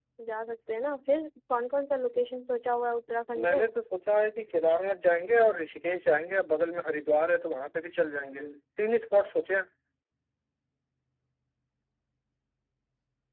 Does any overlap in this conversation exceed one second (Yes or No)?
No